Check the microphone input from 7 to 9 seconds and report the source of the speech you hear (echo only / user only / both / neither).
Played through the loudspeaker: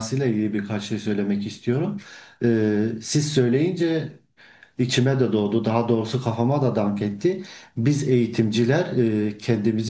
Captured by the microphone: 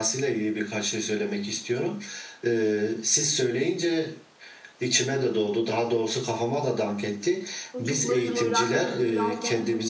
both